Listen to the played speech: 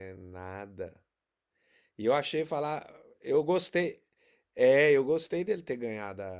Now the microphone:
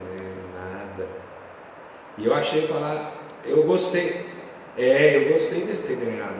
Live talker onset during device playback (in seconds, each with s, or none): none